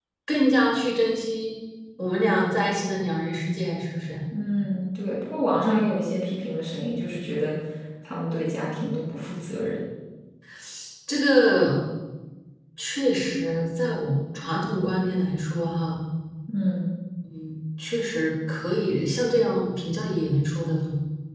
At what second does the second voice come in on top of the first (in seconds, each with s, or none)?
none